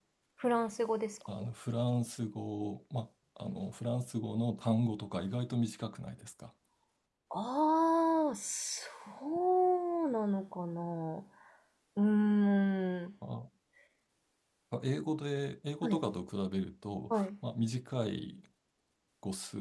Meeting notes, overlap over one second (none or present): none